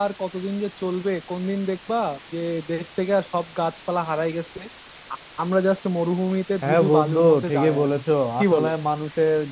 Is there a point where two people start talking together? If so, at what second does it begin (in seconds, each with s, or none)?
6.6 s